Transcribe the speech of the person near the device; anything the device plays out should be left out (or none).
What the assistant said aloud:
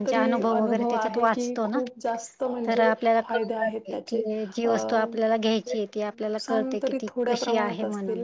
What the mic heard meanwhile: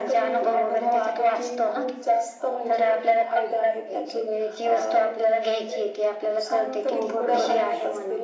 हो बरोबर आहे.